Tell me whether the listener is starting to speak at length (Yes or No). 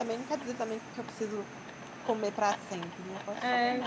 Yes